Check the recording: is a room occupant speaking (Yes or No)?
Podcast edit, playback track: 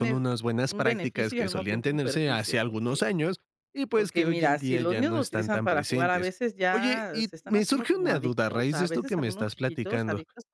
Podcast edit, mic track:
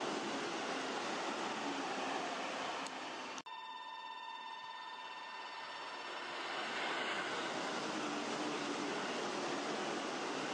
No